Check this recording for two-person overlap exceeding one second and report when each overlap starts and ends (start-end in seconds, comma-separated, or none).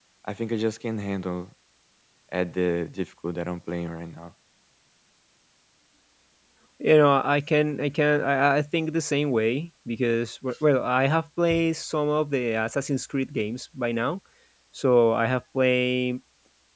none